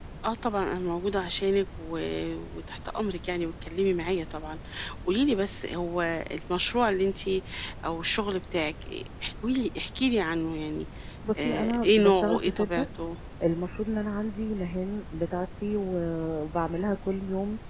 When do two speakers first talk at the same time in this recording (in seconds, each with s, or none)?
11.4 s